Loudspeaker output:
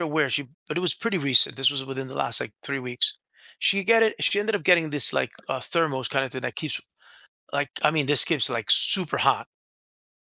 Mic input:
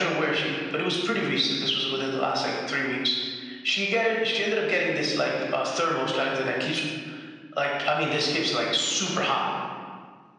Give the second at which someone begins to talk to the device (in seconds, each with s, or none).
none